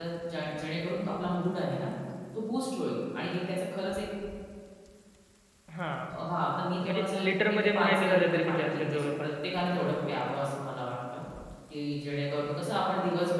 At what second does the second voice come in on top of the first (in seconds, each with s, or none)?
6.8 s